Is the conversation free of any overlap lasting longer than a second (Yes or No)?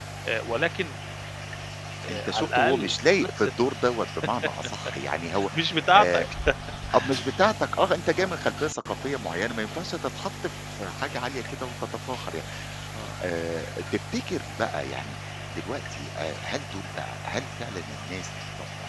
No